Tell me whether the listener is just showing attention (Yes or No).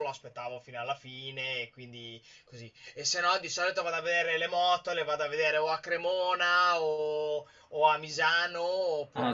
No